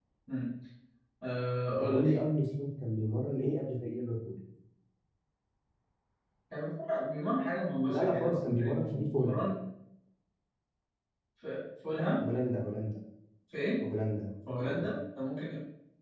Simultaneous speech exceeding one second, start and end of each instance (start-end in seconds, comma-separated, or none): 7.9-9.4